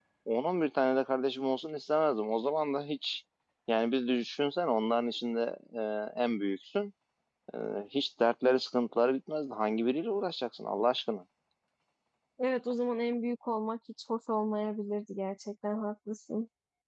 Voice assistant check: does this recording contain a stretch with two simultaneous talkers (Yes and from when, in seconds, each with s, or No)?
No